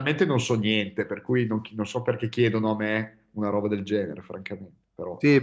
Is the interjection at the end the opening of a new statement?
Yes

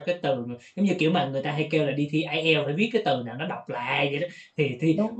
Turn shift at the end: No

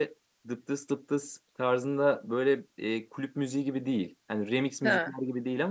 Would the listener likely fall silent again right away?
Yes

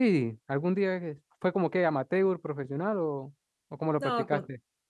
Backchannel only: No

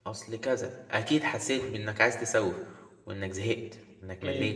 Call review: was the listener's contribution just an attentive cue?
No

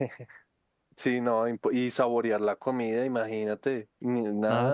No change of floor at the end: No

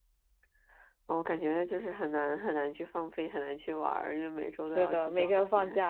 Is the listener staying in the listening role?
No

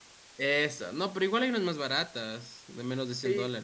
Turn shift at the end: Yes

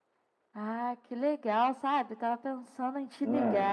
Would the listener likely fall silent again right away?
Yes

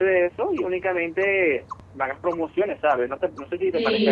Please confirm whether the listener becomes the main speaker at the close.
Yes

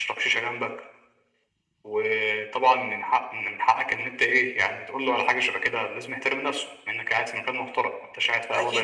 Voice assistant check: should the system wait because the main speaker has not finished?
No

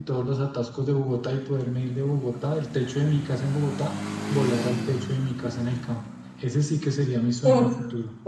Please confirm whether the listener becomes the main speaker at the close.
Yes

